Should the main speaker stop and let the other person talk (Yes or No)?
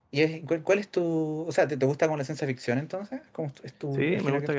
Yes